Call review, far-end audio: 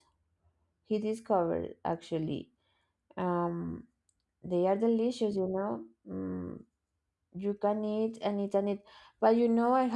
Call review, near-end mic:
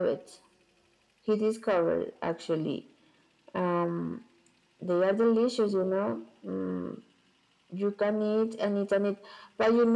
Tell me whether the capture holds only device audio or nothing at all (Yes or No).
Yes